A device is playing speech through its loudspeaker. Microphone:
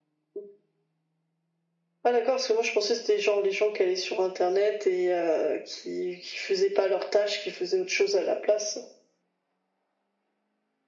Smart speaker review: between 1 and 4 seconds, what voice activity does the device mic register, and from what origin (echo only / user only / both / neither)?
echo only